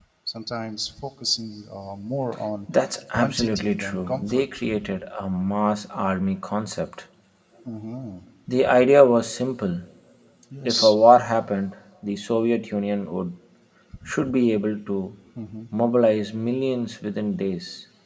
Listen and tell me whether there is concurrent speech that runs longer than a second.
Yes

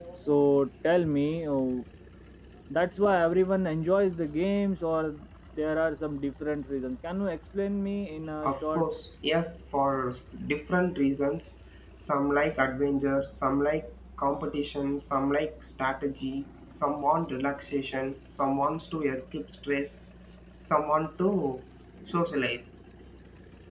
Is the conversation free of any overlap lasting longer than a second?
Yes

